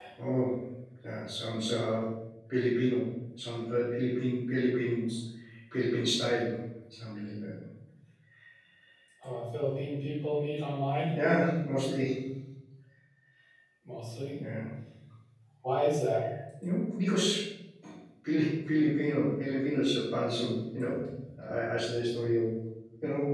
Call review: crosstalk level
none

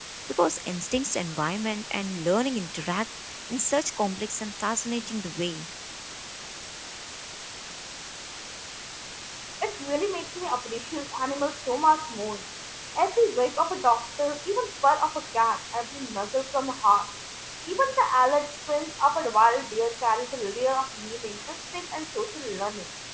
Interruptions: none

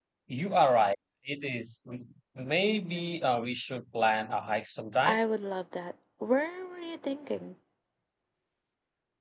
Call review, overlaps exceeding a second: none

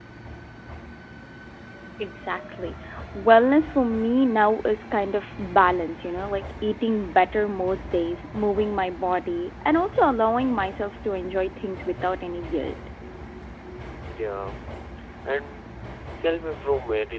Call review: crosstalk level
none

